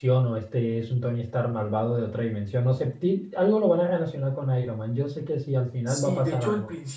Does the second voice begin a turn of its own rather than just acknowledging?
Yes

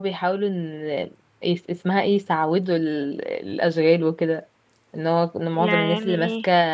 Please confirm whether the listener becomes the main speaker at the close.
No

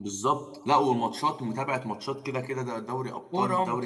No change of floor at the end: No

